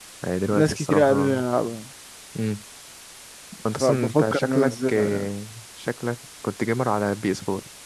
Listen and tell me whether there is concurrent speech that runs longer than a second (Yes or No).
Yes